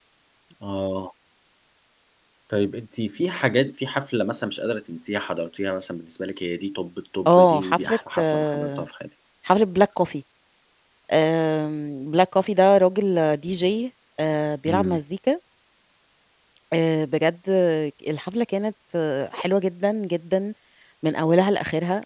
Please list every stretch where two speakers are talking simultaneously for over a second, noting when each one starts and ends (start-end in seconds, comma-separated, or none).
7.3-8.8